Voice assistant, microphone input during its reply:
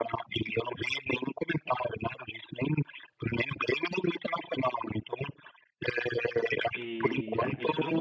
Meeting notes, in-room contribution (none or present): present